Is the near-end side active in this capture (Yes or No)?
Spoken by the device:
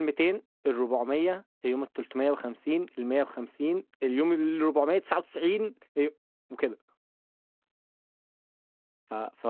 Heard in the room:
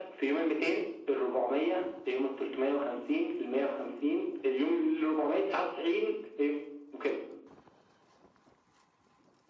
No